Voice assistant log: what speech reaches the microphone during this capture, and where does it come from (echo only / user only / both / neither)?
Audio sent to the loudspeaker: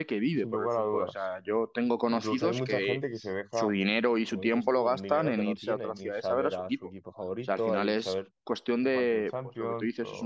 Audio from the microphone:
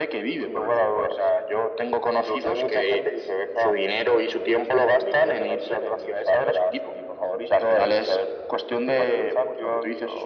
echo only